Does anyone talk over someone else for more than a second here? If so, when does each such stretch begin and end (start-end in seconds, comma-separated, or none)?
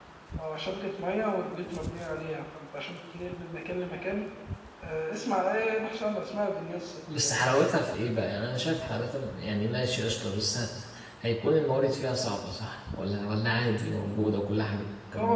none